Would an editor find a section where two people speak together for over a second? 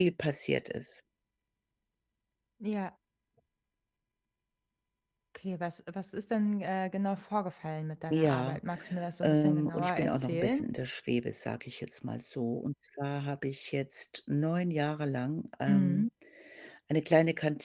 Yes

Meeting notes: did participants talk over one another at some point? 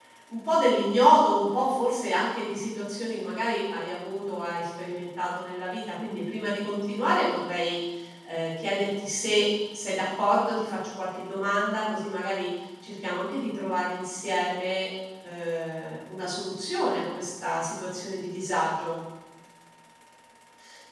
No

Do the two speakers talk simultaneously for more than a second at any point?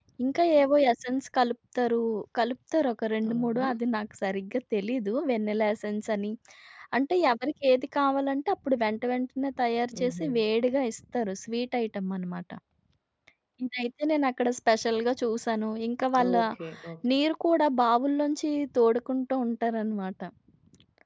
No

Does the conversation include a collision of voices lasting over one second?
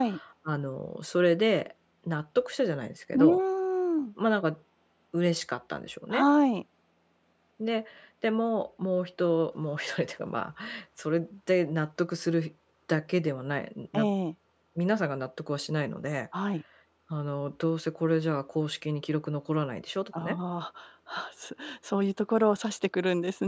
No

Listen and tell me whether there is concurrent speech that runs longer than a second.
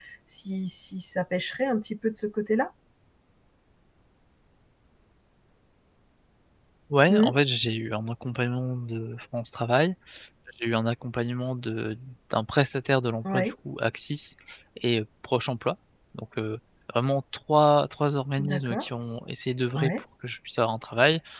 No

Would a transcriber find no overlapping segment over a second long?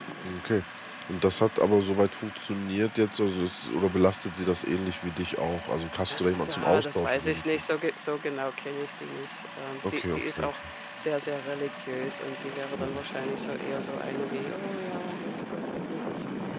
No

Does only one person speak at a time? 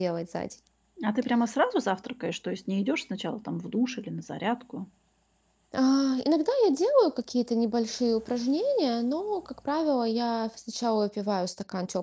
Yes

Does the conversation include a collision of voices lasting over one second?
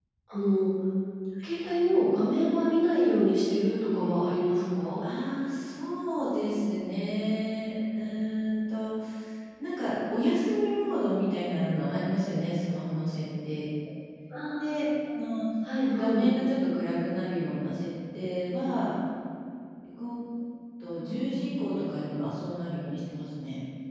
No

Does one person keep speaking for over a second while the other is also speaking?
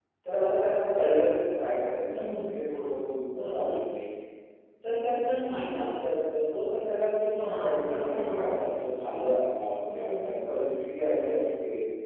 Yes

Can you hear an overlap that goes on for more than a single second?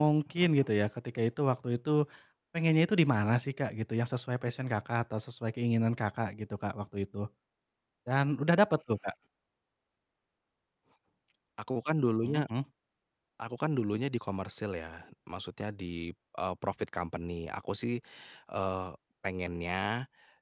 No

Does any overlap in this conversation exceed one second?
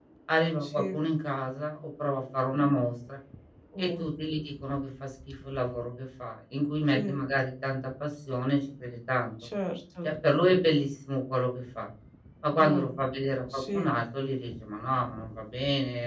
No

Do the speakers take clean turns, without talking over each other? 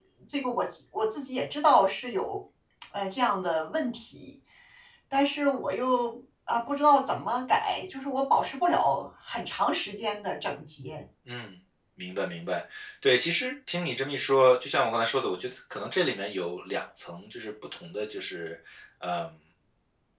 Yes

